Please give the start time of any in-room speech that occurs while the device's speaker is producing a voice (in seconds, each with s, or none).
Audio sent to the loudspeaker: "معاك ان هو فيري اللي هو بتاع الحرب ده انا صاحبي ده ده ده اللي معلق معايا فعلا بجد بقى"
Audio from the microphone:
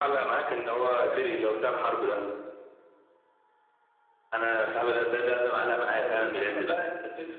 6.0 s